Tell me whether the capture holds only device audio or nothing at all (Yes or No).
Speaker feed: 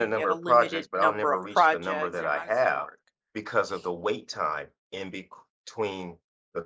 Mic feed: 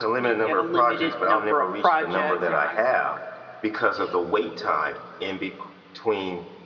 Yes